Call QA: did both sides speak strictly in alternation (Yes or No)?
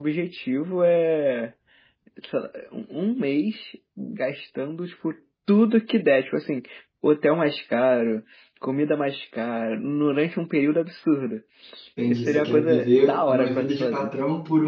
No